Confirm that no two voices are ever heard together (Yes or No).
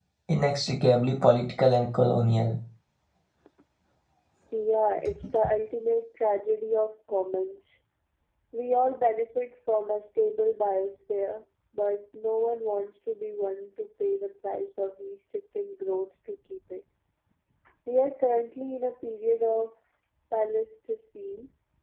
Yes